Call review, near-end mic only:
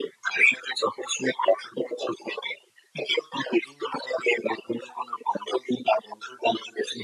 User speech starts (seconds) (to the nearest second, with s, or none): none